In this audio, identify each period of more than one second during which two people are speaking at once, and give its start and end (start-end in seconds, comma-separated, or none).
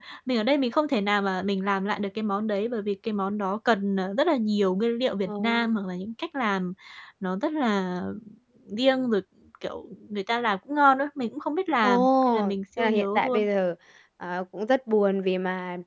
11.8-13.5